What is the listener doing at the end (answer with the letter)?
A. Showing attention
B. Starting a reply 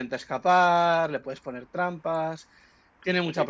A